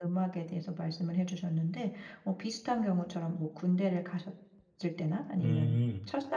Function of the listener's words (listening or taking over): listening